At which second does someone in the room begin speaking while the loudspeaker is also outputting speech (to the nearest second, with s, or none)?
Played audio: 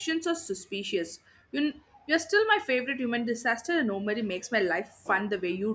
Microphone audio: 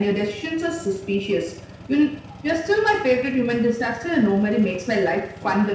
none